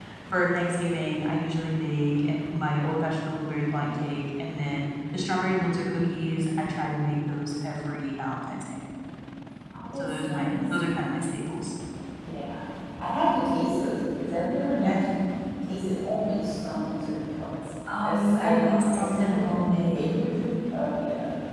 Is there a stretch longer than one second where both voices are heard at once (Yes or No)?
Yes